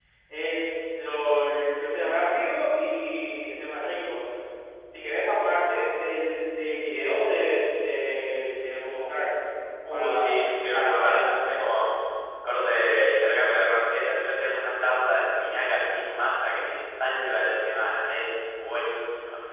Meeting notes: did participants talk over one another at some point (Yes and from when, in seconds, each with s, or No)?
Yes, from 9.9 s